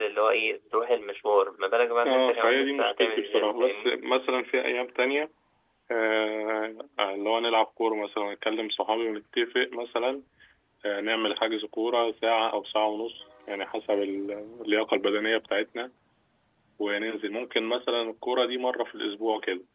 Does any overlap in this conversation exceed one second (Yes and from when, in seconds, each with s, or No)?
Yes, from 2.0 s